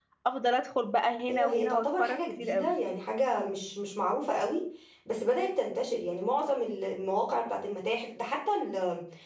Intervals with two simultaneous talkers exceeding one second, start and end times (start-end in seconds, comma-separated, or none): 1.3-2.7